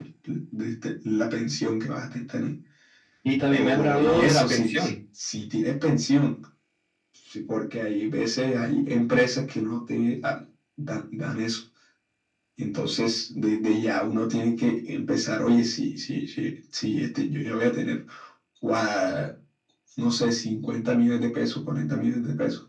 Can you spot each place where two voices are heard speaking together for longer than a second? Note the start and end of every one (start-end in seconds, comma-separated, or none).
3.5-4.7